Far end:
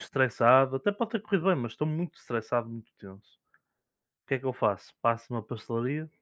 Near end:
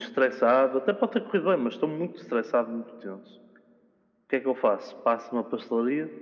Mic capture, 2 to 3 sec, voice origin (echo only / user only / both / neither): echo only